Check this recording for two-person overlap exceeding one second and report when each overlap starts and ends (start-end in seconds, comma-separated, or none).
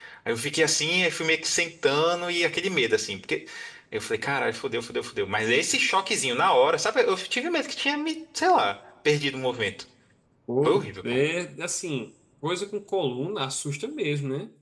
none